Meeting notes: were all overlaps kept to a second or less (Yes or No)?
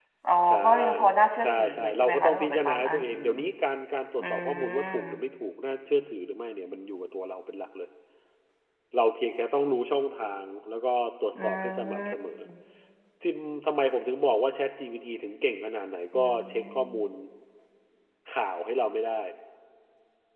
No